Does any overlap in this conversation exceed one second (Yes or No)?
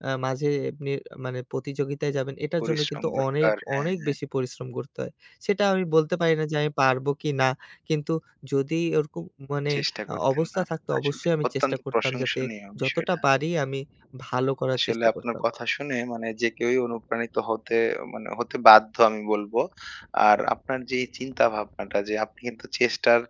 Yes